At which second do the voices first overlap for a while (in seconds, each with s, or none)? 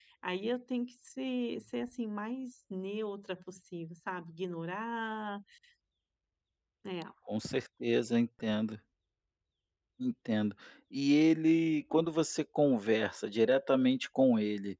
none